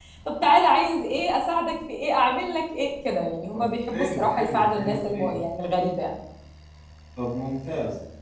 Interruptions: present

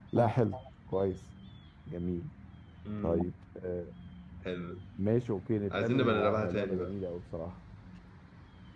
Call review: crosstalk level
present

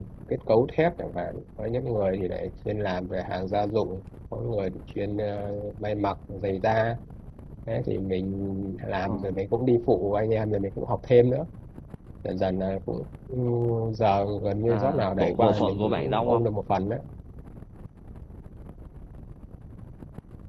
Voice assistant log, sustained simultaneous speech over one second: present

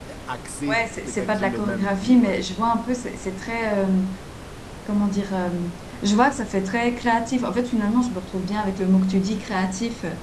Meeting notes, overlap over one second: present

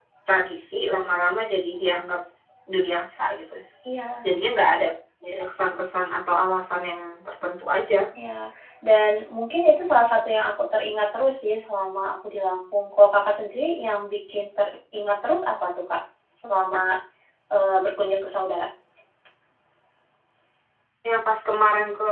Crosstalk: none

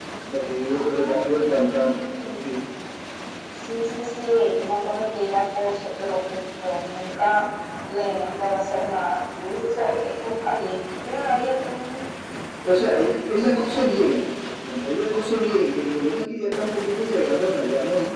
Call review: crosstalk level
present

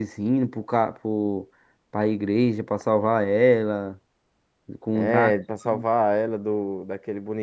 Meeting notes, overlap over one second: none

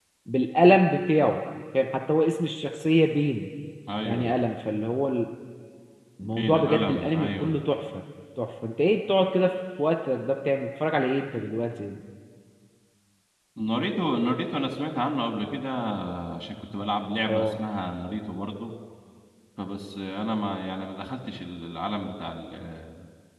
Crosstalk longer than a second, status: present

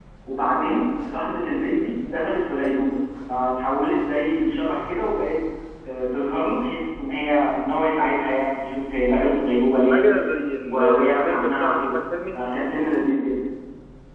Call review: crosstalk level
present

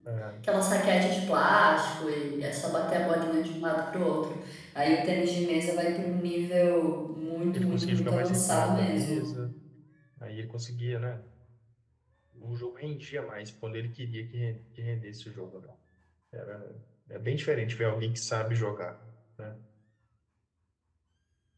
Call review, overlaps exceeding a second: present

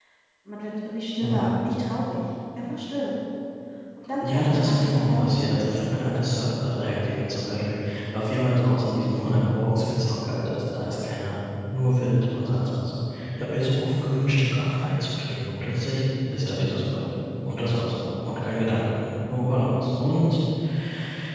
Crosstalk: present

